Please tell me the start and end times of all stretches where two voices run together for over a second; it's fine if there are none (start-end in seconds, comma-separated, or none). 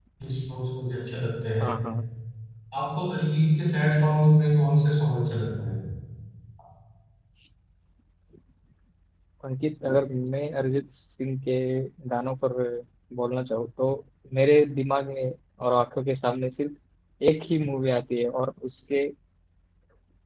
none